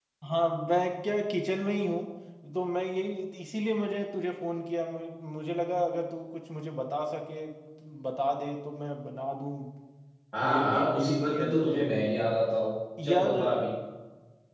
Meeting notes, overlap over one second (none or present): present